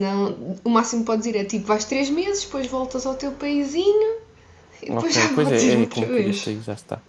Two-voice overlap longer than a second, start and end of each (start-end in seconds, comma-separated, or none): 4.9-6.5